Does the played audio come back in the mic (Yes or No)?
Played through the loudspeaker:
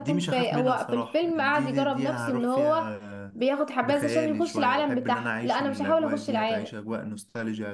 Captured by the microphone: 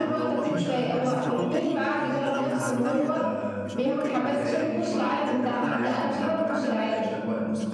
Yes